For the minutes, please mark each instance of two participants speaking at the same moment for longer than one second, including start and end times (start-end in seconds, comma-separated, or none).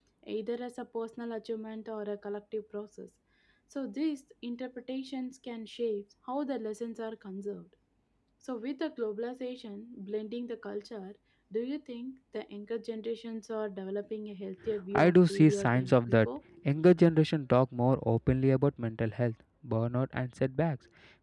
14.9-16.3